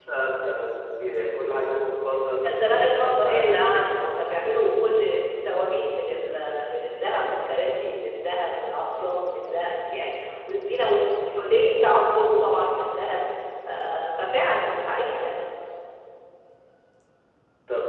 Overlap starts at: 2.5 s

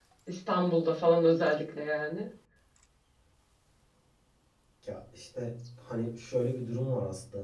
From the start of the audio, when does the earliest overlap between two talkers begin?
none

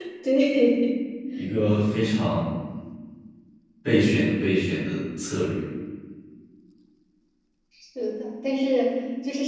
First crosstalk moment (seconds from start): none

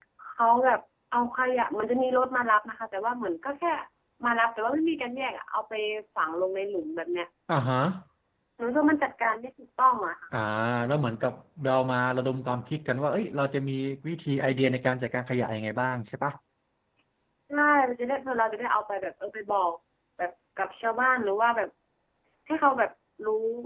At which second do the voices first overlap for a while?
none

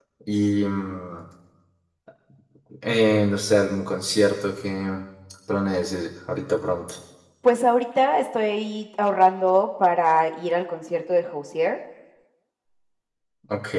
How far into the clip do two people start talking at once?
none

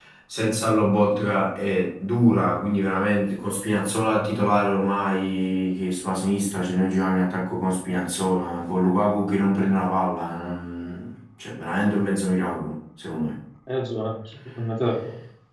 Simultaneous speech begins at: none

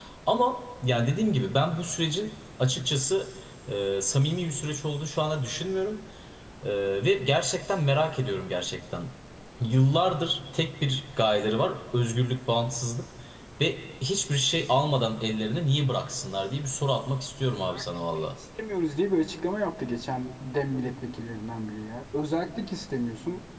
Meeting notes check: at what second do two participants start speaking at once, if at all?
none

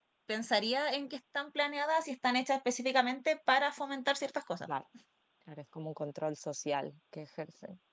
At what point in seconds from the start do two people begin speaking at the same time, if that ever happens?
none

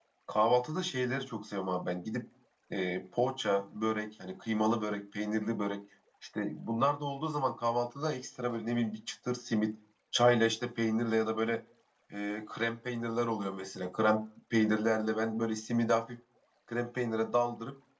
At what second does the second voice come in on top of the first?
none

